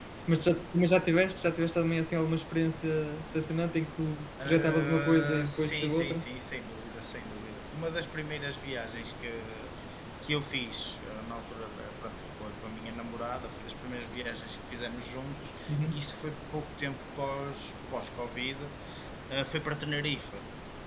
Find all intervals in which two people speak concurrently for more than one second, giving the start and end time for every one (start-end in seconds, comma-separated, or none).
4.4-6.2